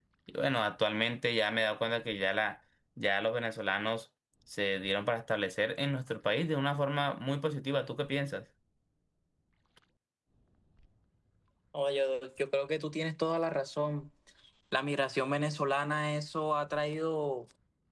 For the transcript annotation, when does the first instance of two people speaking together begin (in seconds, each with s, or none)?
none